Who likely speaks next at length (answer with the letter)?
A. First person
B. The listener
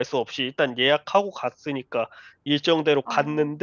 A